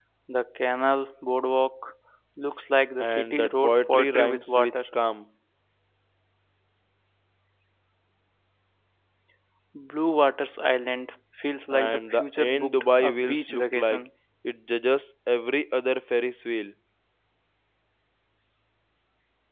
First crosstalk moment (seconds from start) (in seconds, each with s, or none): 3.0 s